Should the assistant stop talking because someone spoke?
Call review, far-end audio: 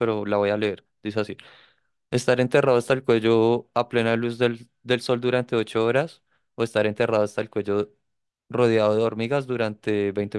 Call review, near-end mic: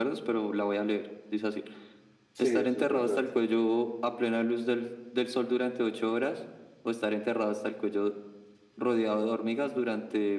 Yes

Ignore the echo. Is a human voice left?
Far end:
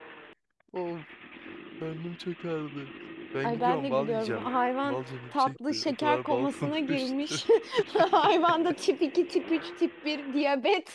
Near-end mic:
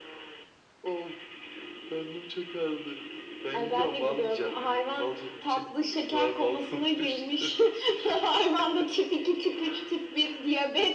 No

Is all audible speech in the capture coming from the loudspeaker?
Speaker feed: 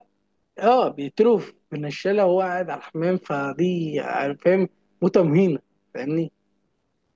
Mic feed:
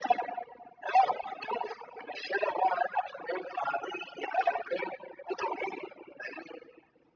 Yes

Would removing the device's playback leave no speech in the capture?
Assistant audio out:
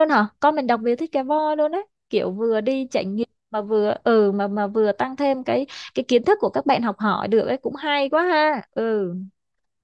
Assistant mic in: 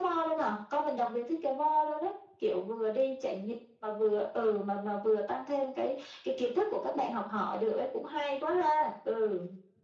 Yes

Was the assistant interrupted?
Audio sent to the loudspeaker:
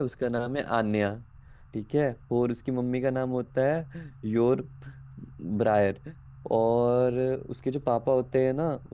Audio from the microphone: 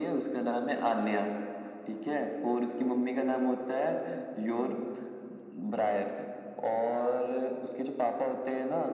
No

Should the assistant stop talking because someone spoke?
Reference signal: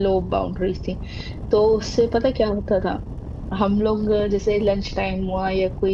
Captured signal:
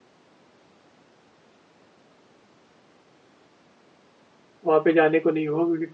Yes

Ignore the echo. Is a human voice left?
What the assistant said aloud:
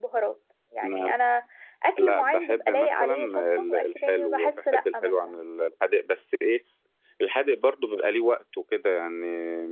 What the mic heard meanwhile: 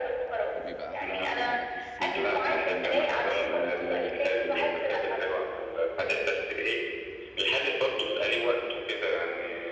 Yes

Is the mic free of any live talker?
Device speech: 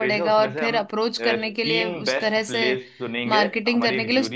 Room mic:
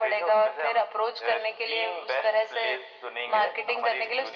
Yes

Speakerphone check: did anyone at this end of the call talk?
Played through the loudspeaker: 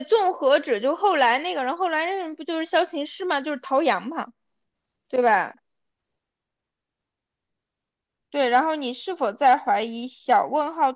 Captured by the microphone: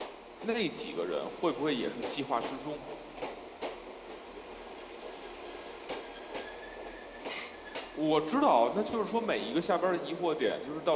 Yes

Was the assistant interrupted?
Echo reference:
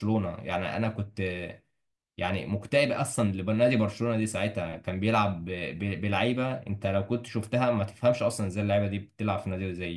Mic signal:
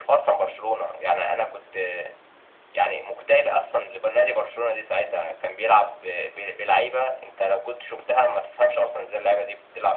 No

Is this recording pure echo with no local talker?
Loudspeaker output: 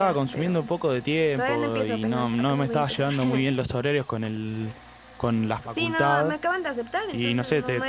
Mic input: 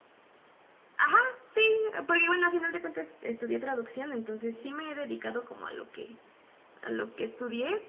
No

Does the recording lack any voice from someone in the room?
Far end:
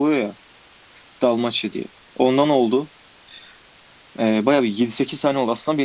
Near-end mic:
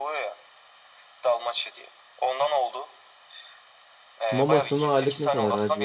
No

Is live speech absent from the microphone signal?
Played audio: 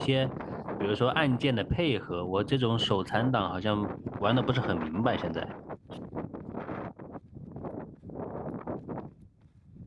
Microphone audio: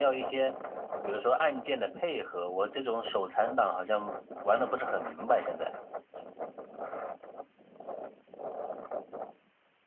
Yes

